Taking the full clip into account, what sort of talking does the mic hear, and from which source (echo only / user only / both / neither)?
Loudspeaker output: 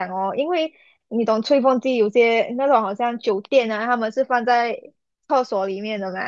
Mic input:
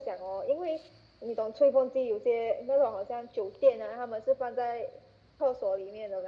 echo only